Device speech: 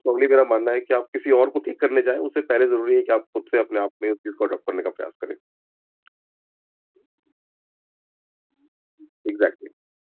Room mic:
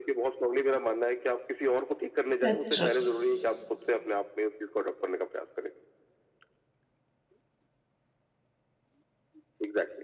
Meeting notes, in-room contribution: present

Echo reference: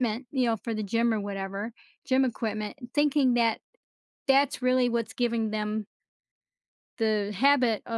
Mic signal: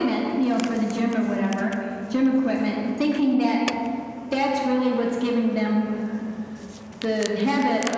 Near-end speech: none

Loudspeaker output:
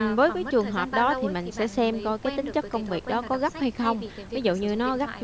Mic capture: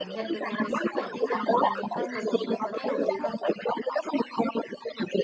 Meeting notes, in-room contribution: present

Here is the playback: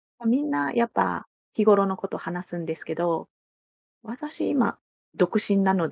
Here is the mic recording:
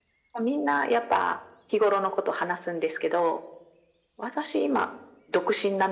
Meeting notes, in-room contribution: none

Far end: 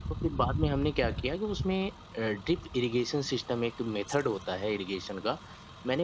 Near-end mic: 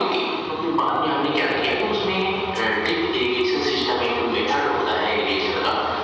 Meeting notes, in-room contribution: none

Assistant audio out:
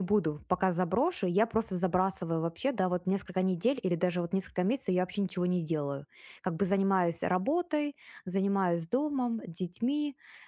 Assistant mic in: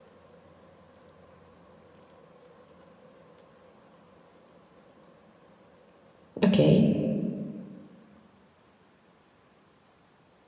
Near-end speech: present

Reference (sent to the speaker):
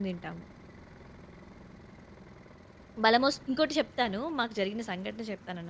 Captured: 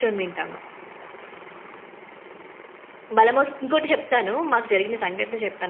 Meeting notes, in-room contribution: none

